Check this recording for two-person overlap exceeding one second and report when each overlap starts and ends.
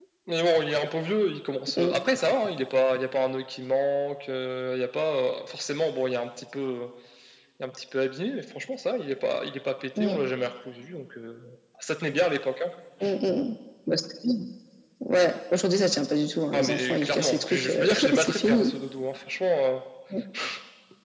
16.5-18.7

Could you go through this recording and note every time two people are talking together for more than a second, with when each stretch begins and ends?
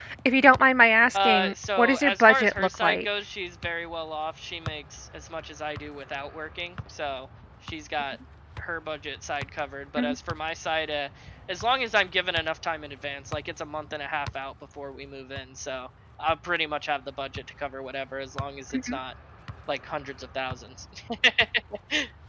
1.1-3.0

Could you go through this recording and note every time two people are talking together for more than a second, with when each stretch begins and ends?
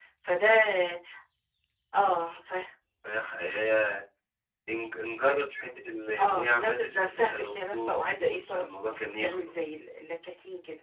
6.2-9.5

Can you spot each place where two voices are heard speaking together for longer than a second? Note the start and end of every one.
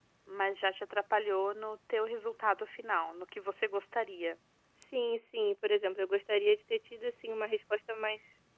none

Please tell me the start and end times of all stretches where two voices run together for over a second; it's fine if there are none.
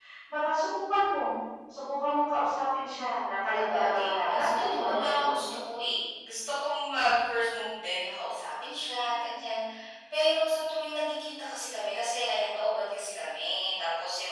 3.2-5.4

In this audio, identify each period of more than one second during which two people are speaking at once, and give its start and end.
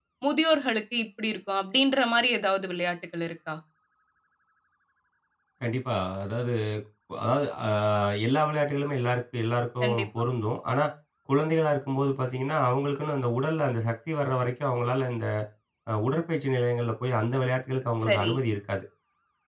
none

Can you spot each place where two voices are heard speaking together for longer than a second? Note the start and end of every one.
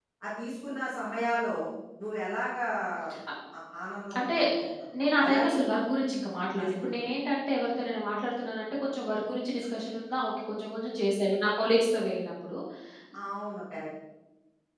none

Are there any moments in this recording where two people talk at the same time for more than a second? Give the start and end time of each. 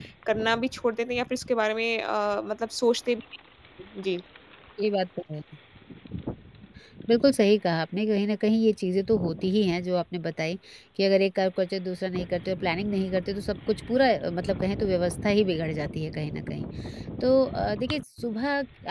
none

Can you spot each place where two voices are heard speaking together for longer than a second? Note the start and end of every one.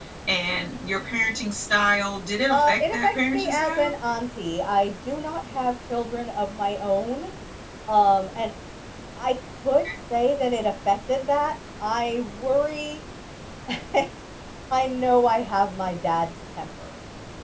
2.5-3.9

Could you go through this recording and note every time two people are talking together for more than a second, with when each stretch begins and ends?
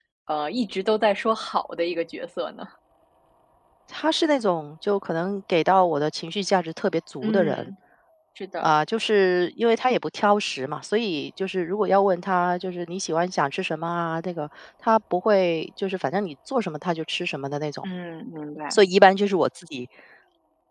none

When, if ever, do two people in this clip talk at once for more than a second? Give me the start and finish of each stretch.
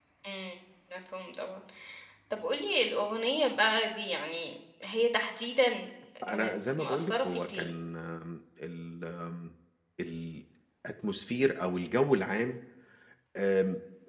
6.3-7.7

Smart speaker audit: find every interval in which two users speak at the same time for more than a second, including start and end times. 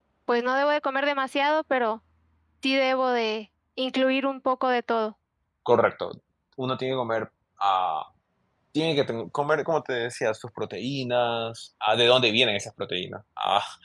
none

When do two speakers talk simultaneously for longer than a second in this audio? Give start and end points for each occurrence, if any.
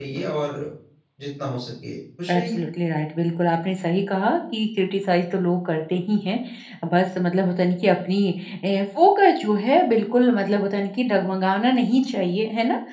none

